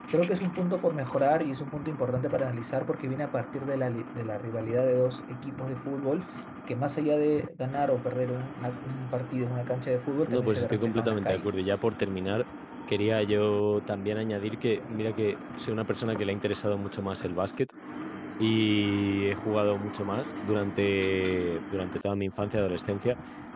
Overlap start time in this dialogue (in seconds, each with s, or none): 10.2 s